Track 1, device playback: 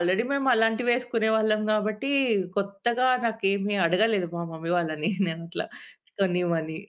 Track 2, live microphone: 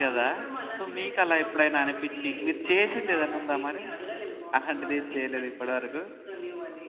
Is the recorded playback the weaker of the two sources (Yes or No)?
Yes